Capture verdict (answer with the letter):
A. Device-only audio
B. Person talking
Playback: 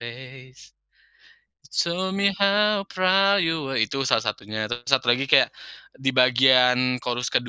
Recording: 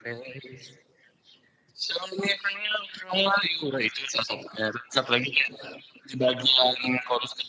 A